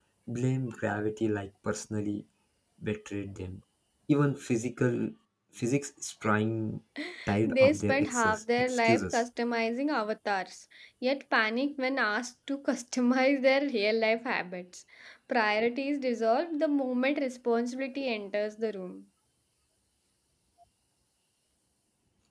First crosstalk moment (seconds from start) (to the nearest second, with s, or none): 7 s